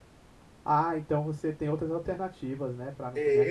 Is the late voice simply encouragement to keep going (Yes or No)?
No